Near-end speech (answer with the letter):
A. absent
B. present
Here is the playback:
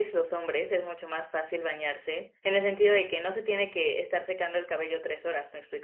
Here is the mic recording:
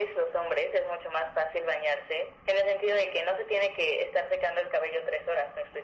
A